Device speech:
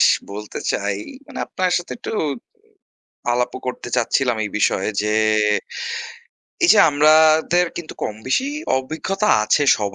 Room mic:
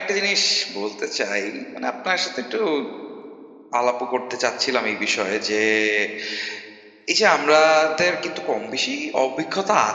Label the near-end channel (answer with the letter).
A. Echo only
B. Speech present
A